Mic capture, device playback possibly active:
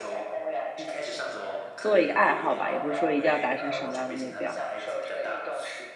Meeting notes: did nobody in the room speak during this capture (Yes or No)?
No